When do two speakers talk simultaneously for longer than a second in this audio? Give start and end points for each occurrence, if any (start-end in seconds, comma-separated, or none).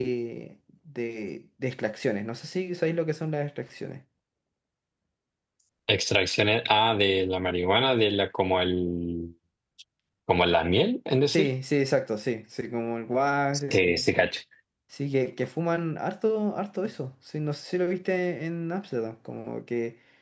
none